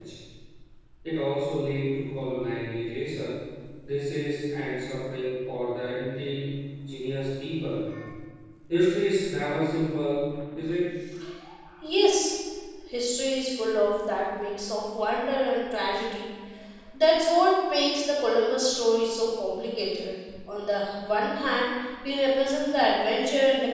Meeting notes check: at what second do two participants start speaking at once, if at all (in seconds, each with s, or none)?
none